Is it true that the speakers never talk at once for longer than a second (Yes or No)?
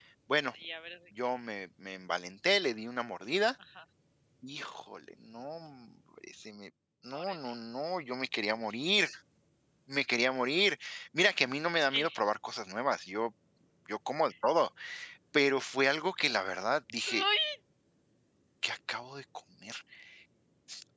Yes